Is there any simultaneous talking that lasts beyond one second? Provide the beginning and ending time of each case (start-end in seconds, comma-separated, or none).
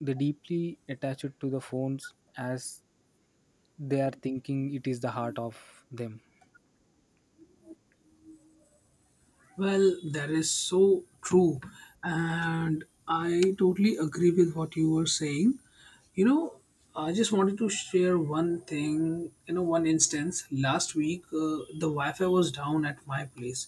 none